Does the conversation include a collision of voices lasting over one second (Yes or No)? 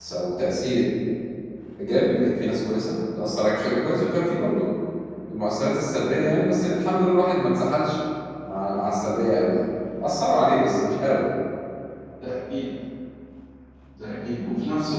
No